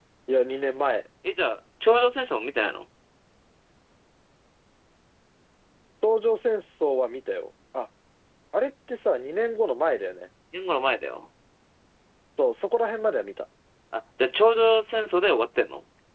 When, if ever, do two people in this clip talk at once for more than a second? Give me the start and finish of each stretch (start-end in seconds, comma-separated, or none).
none